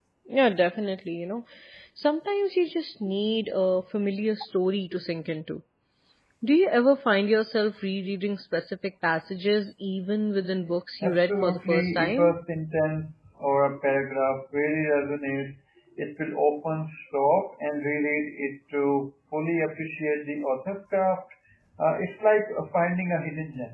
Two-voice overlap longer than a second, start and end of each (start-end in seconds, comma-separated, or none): 11.0-12.3